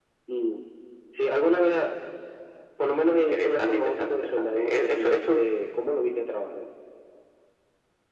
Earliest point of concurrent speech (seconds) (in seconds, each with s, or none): 3.1 s